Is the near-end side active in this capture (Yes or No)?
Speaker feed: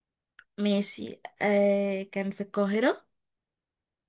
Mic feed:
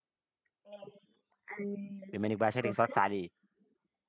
Yes